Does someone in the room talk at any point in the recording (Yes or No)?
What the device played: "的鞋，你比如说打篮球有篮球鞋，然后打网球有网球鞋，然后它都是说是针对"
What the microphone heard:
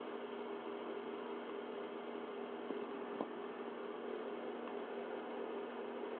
No